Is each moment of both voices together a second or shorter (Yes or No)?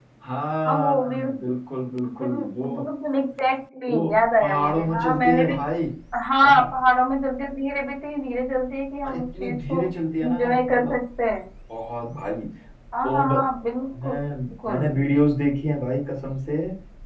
No